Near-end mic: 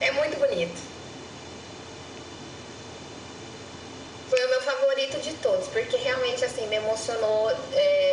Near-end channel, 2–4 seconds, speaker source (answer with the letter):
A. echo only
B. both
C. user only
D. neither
D